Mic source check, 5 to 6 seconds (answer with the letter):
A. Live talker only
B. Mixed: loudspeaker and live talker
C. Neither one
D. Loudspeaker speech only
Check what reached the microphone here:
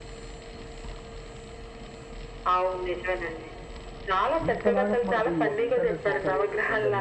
B